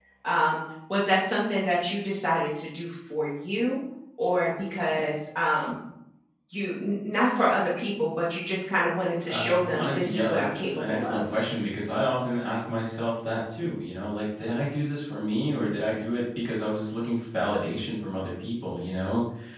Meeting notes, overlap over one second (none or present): present